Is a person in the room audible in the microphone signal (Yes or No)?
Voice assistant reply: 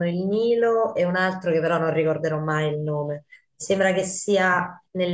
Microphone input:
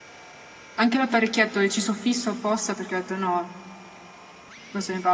Yes